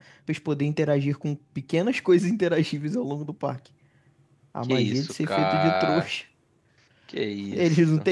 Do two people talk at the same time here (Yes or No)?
Yes